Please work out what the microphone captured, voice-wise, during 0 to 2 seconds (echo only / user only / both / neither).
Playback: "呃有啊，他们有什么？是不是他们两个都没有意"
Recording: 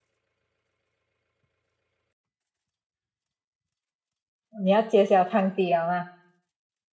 neither